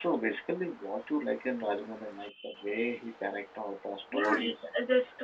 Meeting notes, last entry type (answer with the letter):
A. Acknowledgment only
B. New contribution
B